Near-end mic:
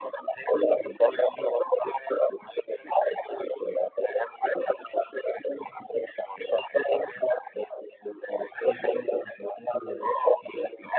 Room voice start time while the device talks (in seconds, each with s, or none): none